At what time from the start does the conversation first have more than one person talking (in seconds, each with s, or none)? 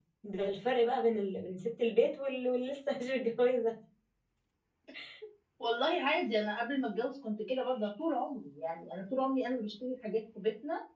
none